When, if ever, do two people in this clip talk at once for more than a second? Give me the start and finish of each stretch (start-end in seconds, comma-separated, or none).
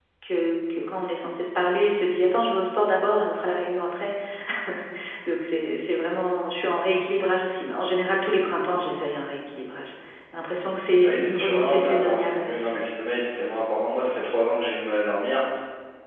11.0-12.4